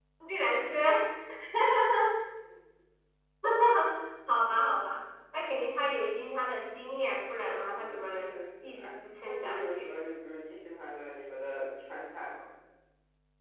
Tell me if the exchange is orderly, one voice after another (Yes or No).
No